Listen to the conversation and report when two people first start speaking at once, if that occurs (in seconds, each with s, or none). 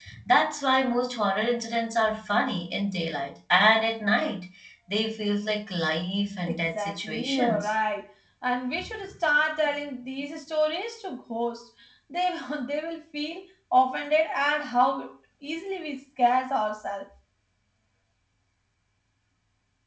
6.5 s